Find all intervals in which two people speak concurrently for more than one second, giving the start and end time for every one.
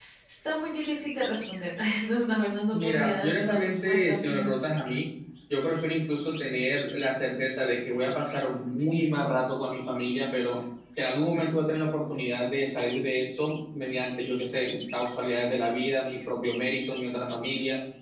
2.7-4.5

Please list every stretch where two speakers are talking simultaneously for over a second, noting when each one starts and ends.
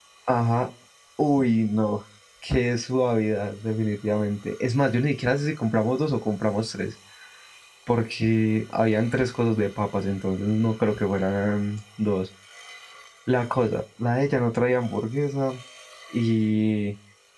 none

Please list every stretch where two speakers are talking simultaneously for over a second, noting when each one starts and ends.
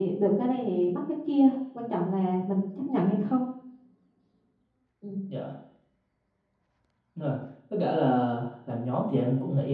none

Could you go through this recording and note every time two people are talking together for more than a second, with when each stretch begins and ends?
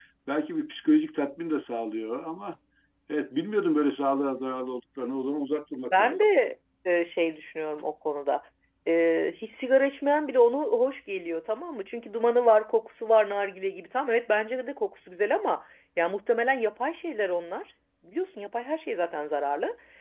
none

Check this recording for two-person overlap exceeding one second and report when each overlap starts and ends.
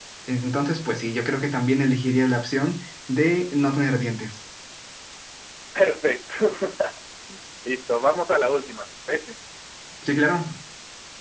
none

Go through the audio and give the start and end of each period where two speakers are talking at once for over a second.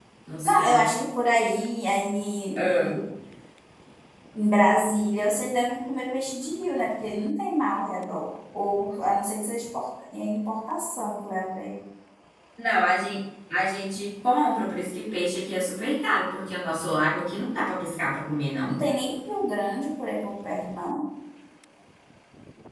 none

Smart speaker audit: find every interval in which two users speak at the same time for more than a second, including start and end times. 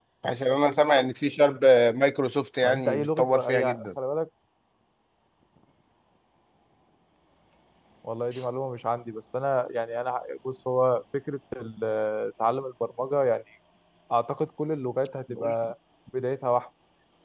2.6-3.9

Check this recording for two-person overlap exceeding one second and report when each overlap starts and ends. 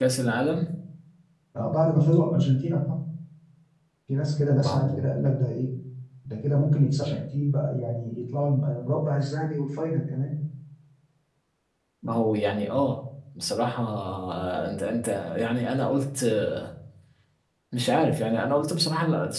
none

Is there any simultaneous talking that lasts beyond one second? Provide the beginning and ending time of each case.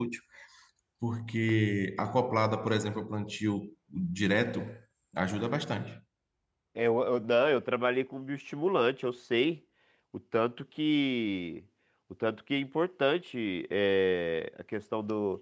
none

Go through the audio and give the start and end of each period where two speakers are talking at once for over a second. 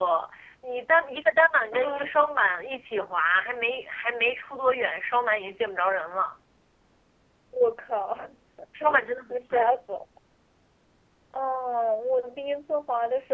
none

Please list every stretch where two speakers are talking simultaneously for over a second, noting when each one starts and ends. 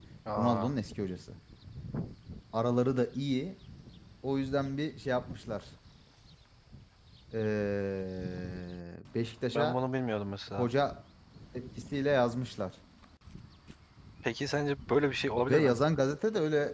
none

